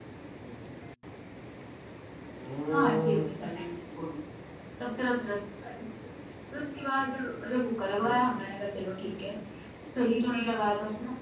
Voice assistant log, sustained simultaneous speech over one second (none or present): none